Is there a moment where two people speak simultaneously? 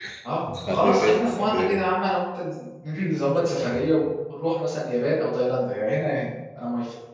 Yes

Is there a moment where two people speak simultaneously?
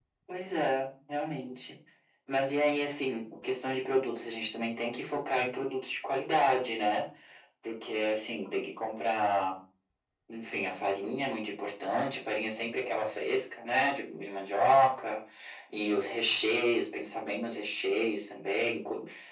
No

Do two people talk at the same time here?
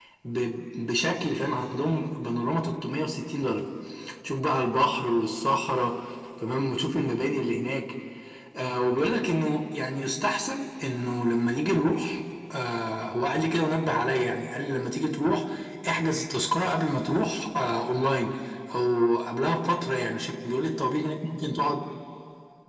No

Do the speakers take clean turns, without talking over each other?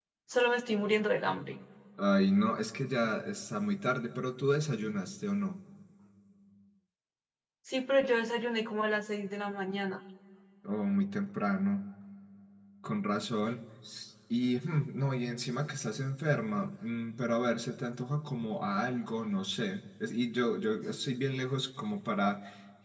Yes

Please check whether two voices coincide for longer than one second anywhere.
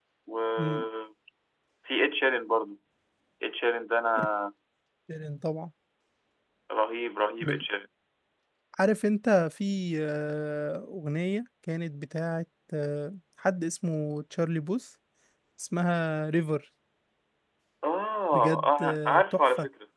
Yes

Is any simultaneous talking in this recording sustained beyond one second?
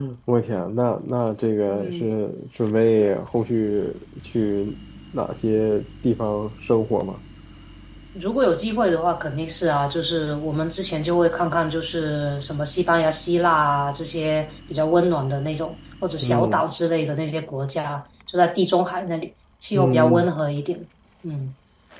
No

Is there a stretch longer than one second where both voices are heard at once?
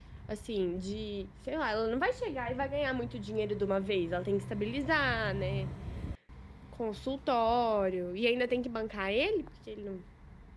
No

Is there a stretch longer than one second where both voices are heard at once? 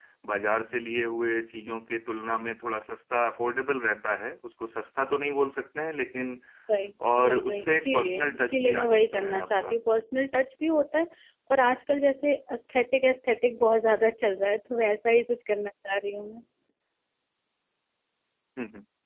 Yes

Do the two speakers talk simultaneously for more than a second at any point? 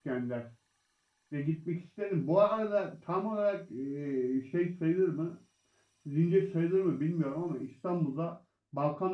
No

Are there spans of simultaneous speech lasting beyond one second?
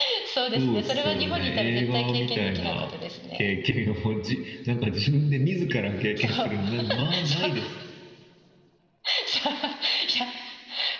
Yes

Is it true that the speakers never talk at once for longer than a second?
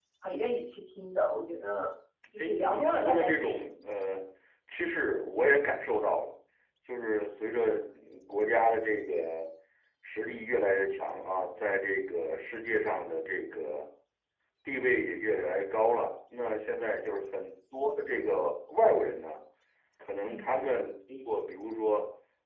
No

